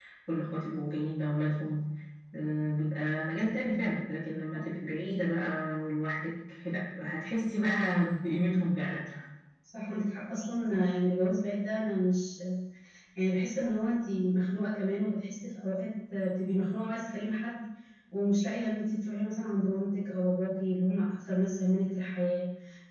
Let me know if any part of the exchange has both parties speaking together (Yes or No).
No